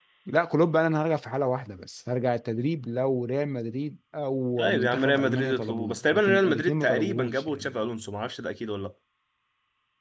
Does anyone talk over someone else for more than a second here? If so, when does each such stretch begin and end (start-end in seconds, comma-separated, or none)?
4.6-7.8